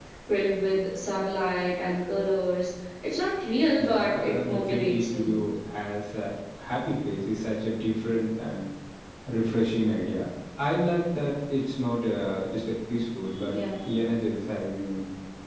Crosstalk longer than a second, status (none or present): present